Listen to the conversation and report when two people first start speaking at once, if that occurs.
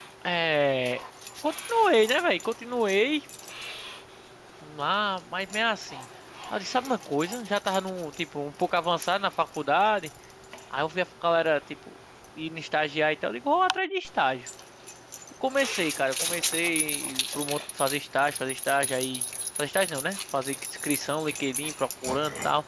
none

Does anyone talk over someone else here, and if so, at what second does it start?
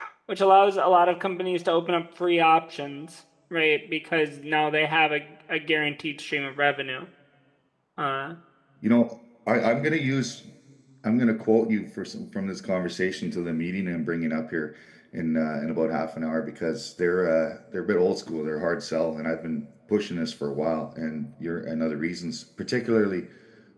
none

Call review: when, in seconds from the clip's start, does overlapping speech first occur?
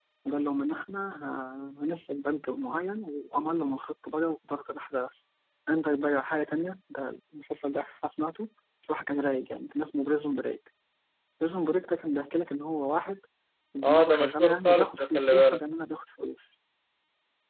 14 s

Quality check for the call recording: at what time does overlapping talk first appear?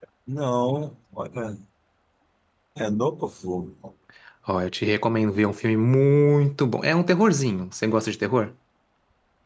none

